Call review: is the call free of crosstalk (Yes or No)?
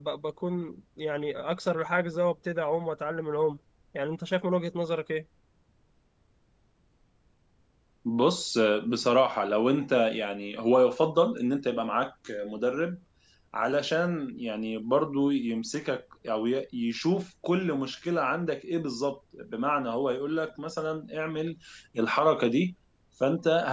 Yes